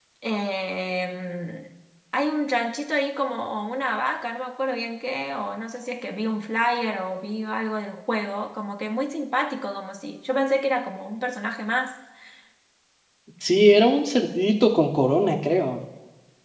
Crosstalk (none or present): none